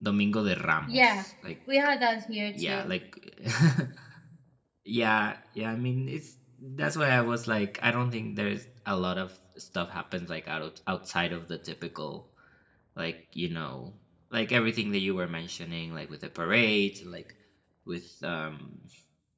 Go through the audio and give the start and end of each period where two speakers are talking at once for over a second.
none

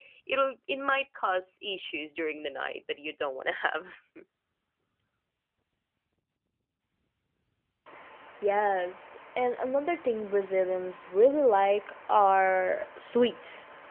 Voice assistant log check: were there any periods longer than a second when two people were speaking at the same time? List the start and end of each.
none

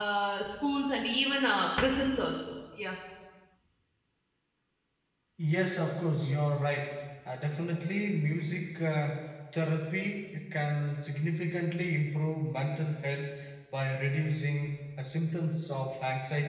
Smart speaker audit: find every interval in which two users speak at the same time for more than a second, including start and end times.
none

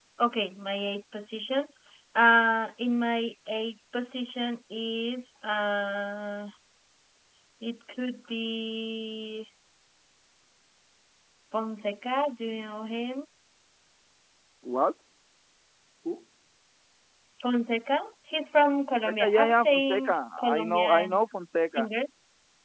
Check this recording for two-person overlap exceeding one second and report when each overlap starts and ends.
18.9-21.2

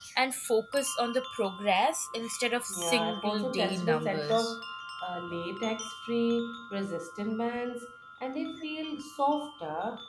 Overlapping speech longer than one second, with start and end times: 2.7-4.6

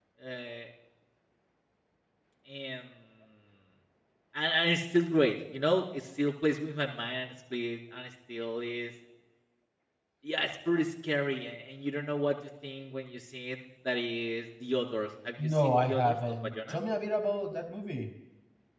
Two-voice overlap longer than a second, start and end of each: 15.5-16.8

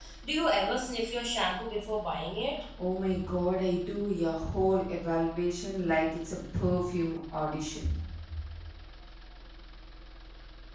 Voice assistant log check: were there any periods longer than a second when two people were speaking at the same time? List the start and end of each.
none

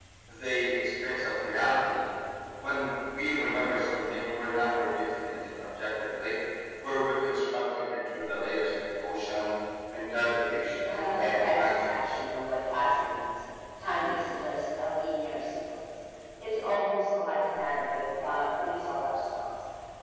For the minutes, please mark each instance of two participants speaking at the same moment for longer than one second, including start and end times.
10.8-12.1

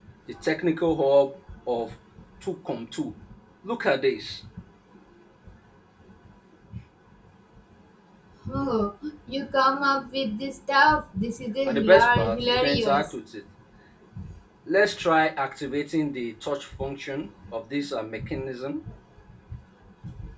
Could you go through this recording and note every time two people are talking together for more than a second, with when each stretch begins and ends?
11.7-13.0

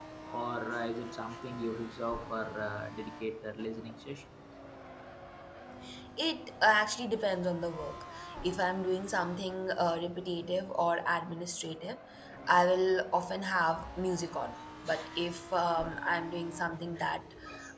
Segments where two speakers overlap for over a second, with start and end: none

